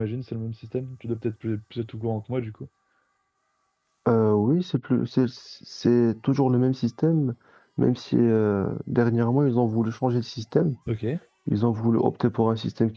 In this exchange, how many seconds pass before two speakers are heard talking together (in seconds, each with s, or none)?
none